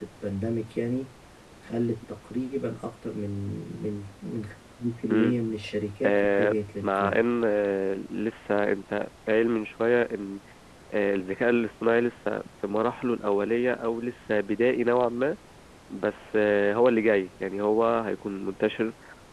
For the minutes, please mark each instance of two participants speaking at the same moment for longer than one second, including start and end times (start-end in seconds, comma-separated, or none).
6.0-7.2